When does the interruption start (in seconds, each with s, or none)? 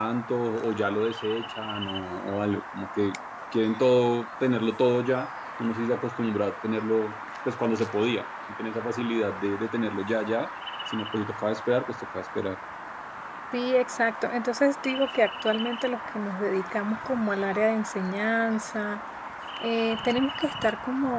none